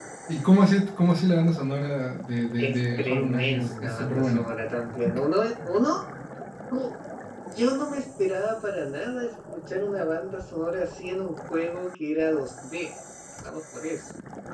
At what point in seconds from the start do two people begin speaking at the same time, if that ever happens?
3 s

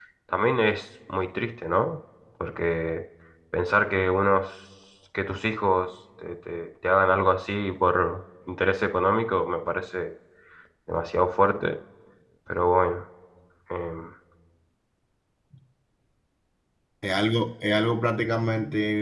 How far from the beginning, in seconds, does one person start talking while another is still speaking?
none

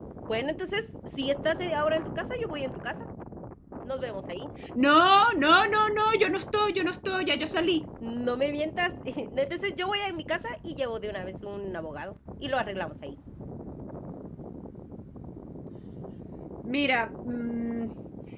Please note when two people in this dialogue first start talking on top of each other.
none

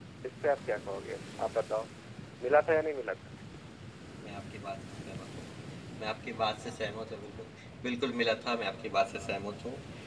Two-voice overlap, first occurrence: none

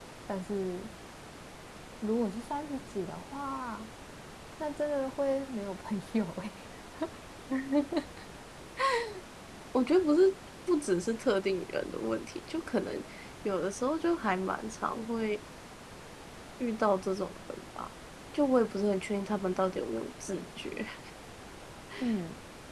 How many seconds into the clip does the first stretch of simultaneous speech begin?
none

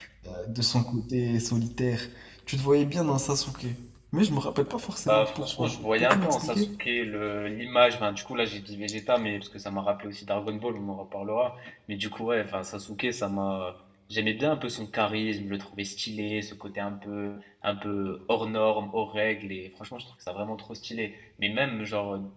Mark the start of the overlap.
5 s

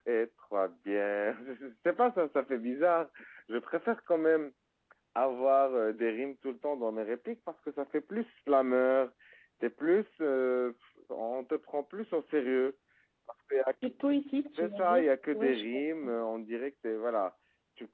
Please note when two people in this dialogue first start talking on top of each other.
15 s

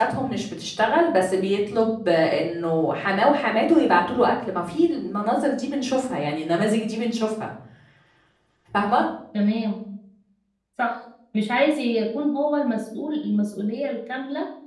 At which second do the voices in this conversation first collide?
none

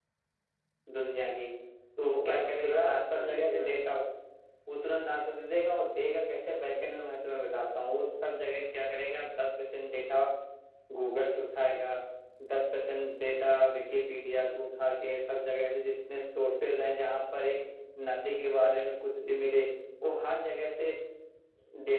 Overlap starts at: 2 s

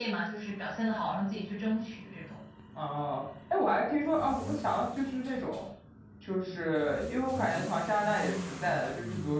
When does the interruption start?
none

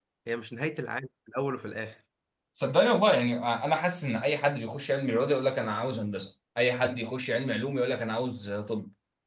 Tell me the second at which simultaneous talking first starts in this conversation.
none

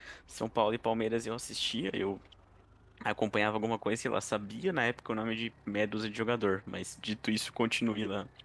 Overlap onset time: none

